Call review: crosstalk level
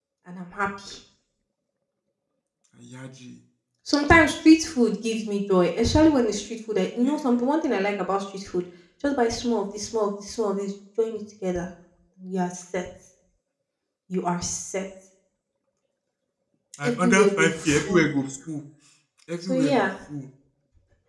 present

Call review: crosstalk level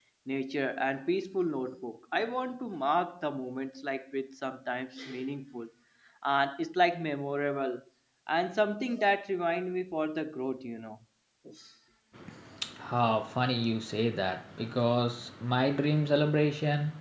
none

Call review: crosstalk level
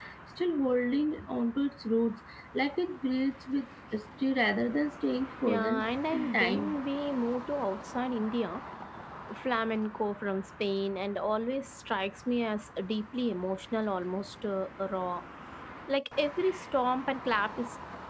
present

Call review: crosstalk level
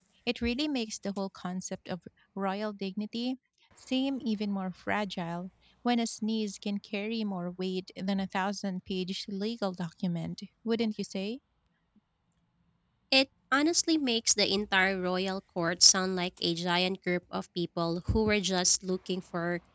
none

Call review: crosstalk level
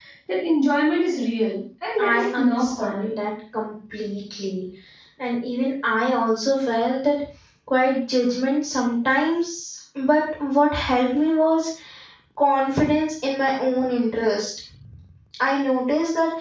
present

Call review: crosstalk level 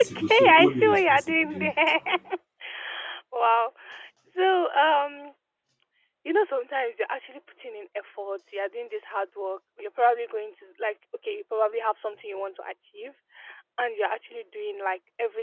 present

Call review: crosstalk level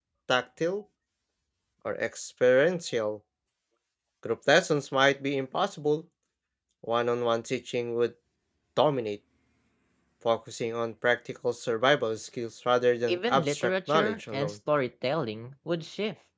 present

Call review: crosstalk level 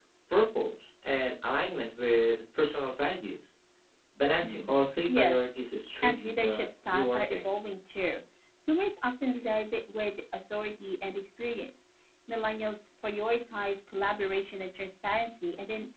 present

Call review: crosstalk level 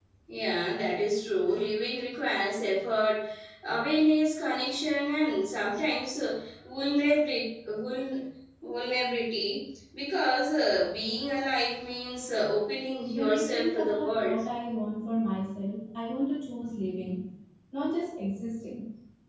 present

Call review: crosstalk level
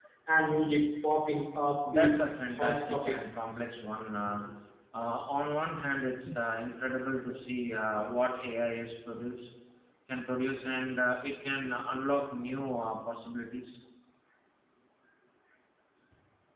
present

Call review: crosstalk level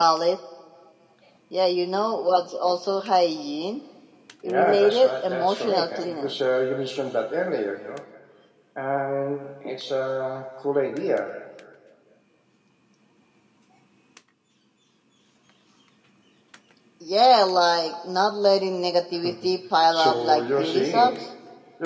present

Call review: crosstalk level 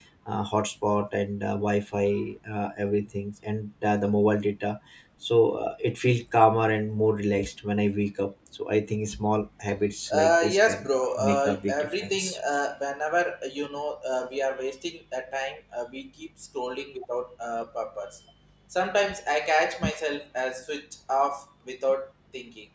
present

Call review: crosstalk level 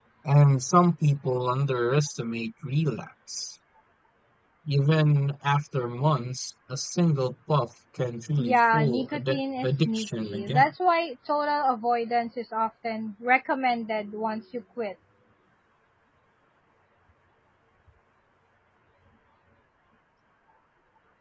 present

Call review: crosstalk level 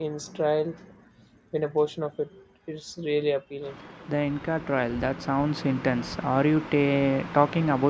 none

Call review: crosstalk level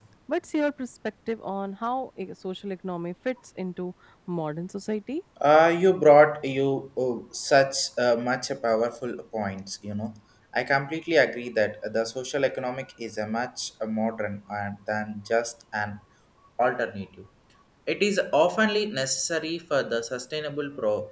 none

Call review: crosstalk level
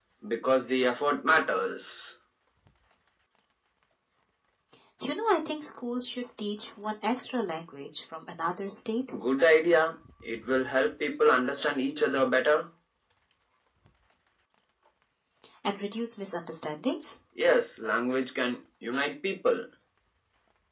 none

